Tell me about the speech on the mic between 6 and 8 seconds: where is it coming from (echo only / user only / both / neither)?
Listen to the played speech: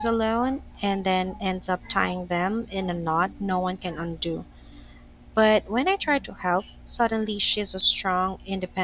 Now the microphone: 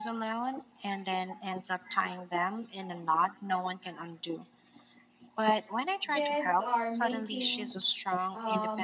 both